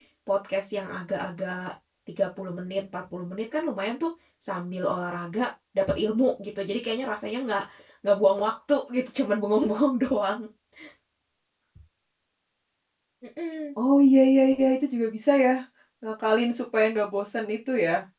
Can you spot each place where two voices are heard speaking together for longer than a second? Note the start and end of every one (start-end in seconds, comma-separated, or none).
none